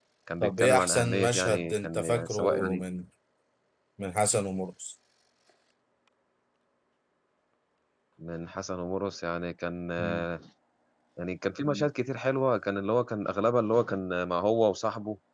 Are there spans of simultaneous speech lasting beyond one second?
Yes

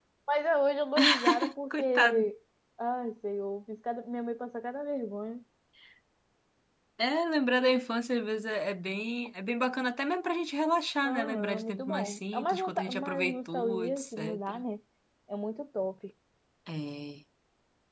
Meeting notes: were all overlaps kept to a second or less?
No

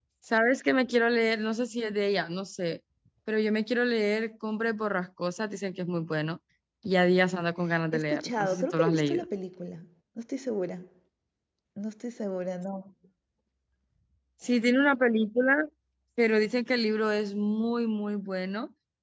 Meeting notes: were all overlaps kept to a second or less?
No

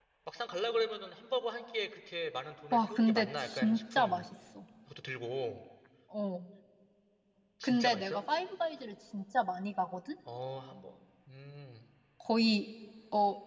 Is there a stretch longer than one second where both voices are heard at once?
Yes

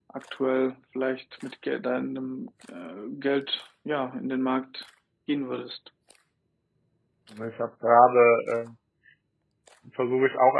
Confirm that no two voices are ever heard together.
Yes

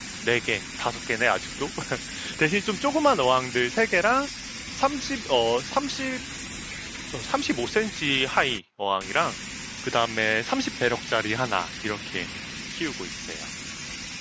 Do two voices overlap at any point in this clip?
No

